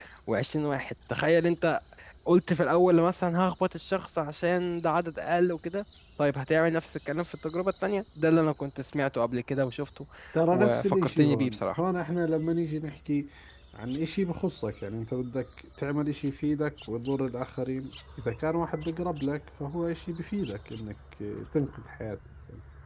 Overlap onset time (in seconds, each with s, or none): 10.5 s